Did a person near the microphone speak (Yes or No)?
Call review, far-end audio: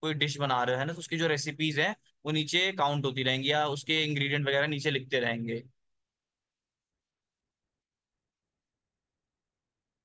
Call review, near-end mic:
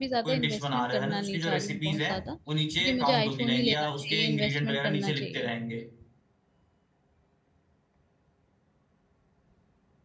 Yes